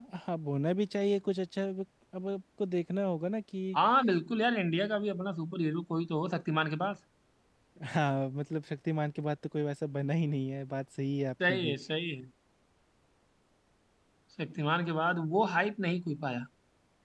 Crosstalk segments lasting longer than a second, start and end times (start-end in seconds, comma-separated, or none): none